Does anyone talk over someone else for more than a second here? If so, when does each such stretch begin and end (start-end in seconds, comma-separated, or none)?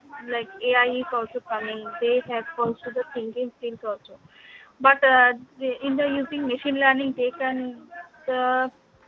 none